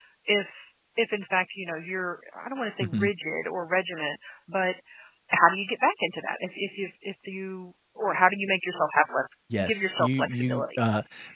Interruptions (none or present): present